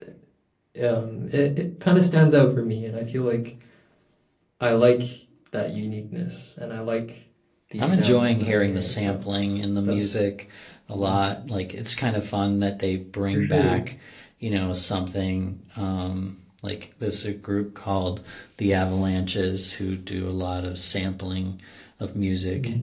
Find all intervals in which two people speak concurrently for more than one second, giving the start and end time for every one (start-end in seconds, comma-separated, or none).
7.8-9.2